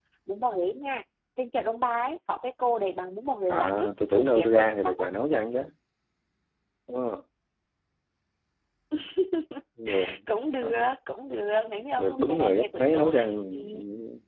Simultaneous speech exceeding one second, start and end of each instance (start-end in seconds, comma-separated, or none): 3.5-5.1, 12.0-13.2